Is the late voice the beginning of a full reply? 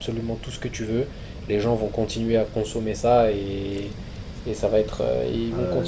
Yes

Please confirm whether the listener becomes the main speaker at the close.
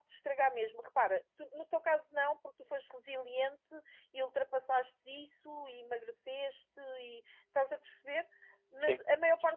No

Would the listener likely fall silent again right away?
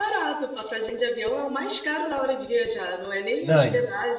Yes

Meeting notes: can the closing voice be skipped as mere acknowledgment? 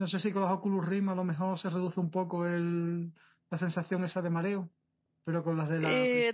No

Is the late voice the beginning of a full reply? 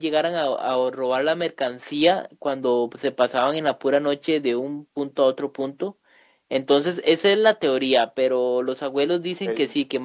No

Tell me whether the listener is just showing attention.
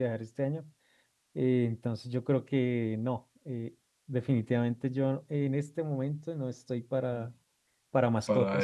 Yes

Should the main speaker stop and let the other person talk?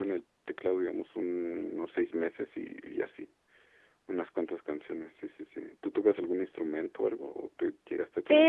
Yes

